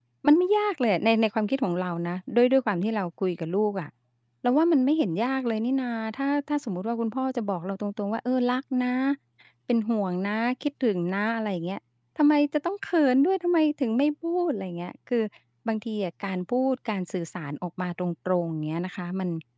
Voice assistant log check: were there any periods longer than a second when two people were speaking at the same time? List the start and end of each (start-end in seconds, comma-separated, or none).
none